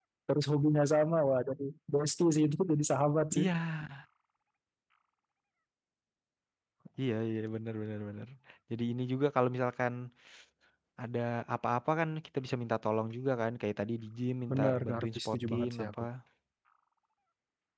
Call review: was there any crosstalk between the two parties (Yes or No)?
Yes